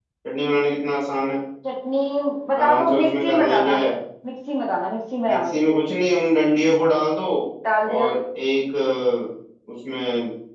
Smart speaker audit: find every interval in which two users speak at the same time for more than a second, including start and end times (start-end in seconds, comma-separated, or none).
2.6-3.8